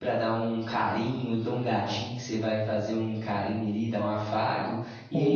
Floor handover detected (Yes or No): No